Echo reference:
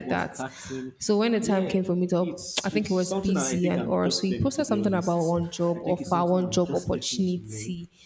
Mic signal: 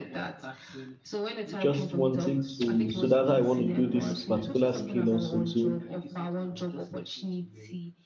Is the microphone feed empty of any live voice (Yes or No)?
No